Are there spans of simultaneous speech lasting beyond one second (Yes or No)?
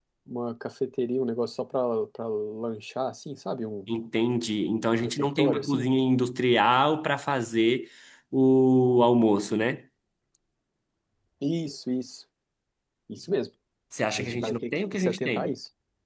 Yes